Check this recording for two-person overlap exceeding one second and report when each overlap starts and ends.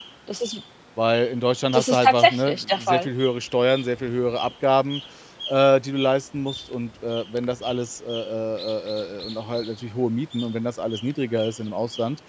1.7-3.1

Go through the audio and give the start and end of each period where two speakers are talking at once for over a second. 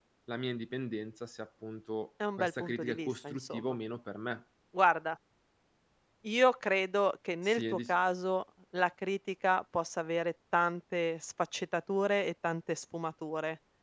2.4-3.8

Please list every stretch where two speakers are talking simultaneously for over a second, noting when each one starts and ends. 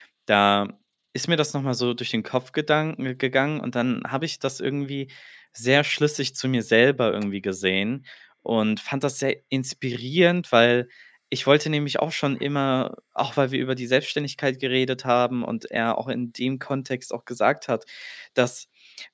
none

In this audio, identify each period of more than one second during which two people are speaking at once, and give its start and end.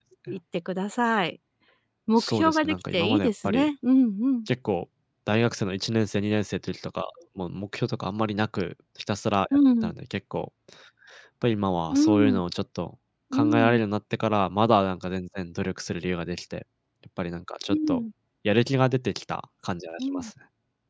2.2-3.7

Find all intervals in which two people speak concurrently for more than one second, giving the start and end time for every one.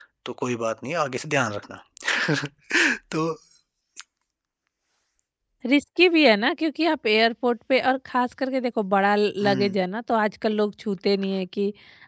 none

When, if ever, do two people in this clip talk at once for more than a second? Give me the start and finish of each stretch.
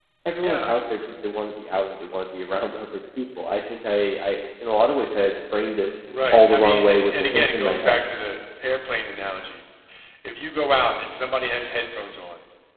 6.3-8.0

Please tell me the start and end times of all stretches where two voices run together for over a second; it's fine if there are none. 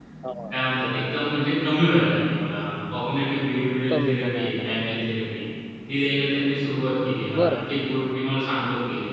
3.9-5.1

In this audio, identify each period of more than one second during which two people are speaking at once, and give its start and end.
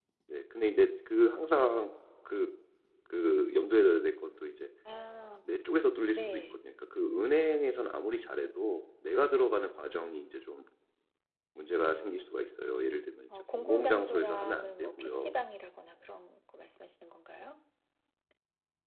13.3-15.3

